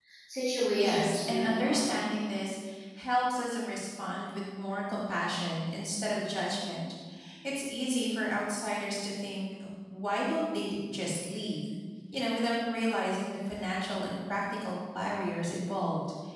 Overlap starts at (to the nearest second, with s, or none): 1 s